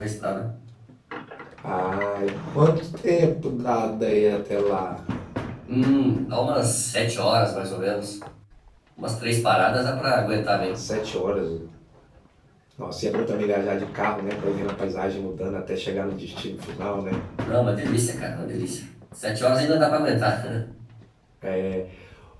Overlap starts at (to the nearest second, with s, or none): none